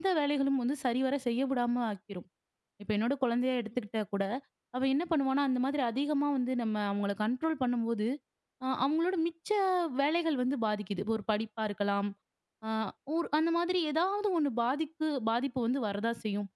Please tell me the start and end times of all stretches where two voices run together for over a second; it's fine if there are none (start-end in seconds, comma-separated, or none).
none